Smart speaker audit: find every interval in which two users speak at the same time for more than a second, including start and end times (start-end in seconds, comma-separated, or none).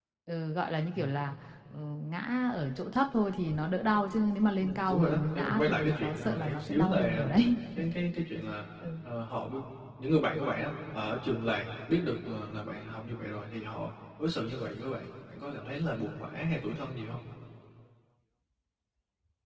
4.6-7.2